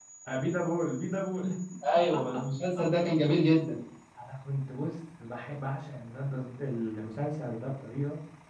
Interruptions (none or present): none